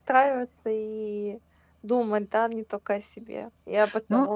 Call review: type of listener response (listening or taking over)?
taking over